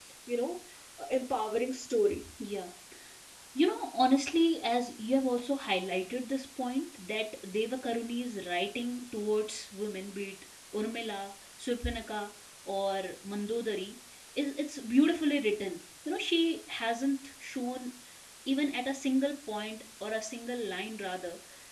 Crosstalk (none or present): none